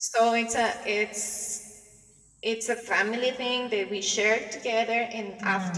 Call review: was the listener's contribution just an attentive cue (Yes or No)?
Yes